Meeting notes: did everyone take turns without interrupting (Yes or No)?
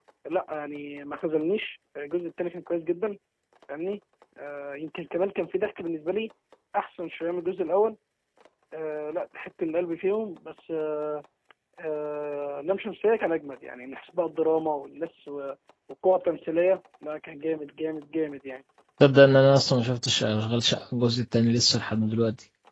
Yes